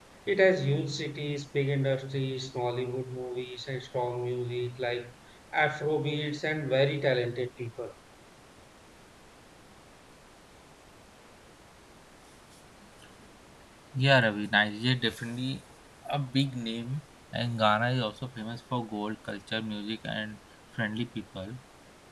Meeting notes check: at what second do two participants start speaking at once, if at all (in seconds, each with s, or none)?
none